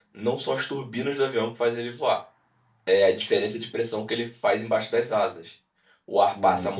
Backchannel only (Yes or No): Yes